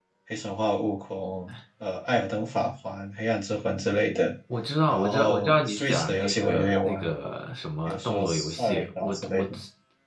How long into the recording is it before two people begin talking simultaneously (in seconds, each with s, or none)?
4.9 s